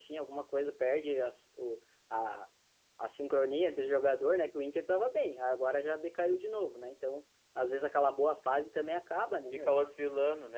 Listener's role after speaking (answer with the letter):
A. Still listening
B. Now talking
B